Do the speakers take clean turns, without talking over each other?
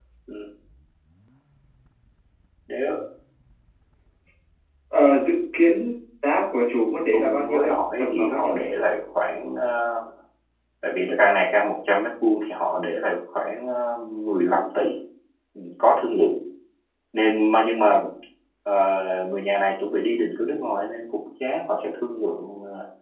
No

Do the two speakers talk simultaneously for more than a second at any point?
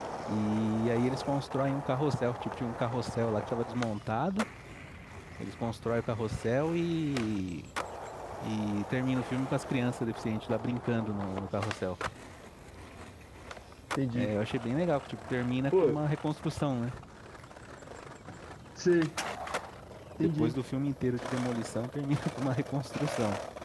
No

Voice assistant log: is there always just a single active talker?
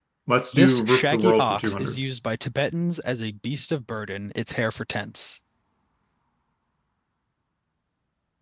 No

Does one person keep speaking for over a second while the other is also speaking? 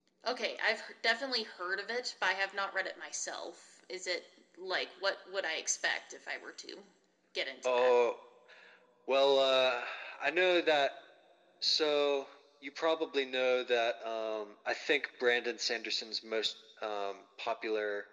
No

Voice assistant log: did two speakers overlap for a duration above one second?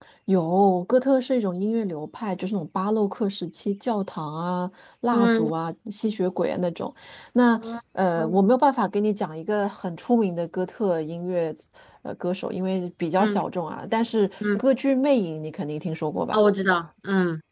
No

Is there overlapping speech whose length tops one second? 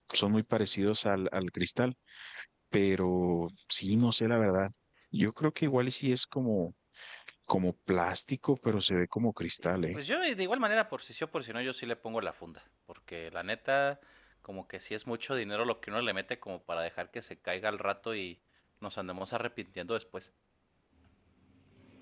No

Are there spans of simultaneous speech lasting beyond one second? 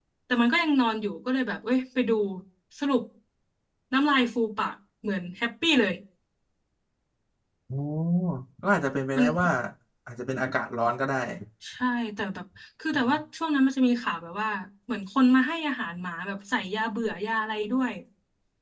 No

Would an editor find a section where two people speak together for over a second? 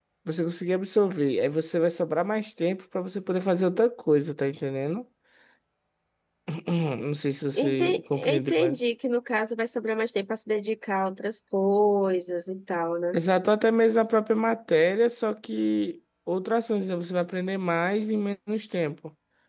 Yes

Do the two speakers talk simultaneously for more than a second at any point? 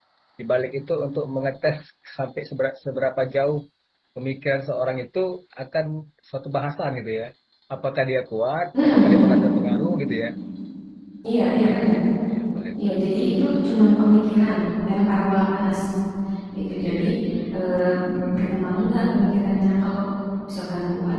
No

